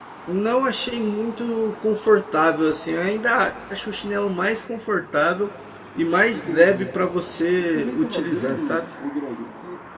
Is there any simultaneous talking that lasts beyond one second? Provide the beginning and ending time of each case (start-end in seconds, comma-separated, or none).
7.6-8.8